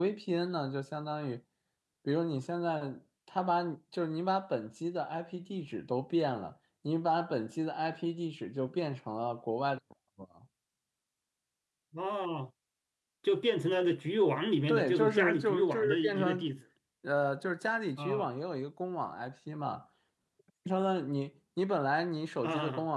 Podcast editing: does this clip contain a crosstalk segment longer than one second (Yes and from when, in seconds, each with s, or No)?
Yes, from 14.7 s